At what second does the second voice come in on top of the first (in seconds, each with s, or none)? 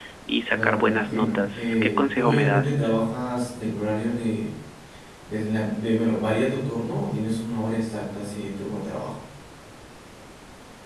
0.5 s